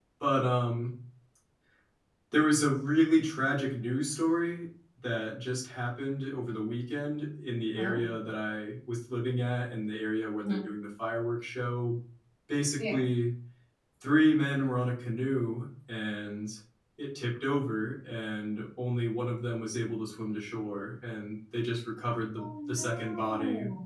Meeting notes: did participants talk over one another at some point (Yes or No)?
Yes